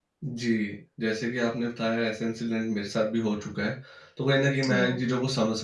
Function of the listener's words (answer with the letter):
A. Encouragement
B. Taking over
A